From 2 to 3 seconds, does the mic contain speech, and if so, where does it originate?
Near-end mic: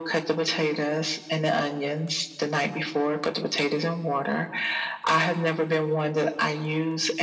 echo only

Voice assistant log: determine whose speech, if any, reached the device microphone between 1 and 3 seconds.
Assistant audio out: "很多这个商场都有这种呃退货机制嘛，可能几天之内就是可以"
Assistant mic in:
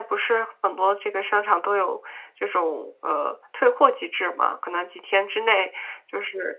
echo only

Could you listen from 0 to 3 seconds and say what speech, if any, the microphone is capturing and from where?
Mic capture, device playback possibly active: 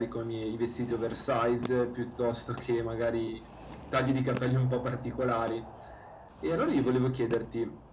echo only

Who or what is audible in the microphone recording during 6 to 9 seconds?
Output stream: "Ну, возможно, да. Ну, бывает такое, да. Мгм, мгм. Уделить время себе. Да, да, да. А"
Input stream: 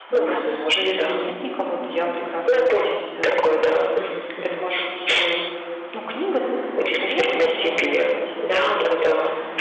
both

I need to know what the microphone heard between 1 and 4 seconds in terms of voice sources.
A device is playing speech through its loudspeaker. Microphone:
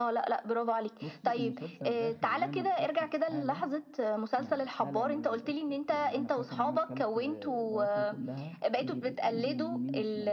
both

